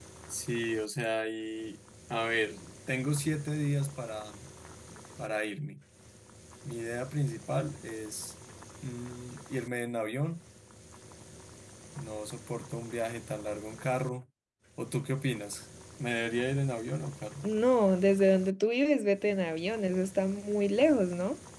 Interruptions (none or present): none